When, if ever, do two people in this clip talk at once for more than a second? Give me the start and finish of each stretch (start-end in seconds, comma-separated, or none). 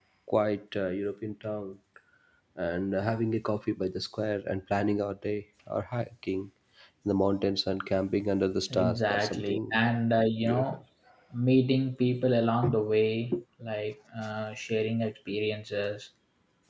8.7-10.0